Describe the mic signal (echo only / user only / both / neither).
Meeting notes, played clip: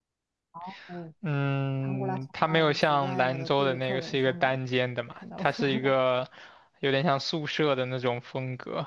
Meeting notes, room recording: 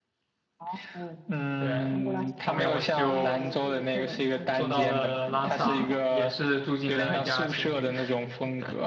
both